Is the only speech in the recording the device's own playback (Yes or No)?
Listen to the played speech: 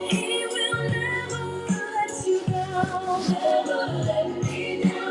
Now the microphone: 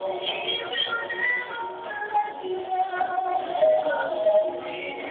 Yes